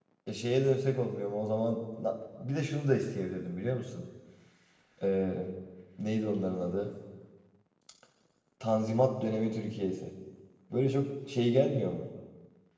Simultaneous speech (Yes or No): No